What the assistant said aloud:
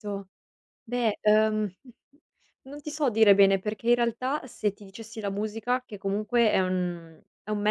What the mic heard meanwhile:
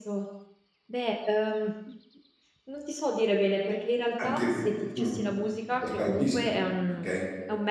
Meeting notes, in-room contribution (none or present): present